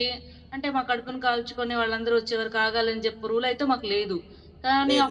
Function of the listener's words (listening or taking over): listening